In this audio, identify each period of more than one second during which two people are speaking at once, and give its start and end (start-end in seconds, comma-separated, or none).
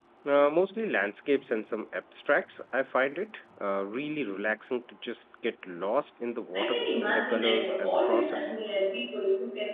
6.5-8.5